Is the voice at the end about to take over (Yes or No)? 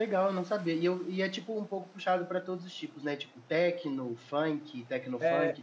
Yes